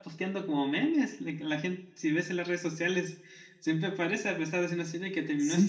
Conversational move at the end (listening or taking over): taking over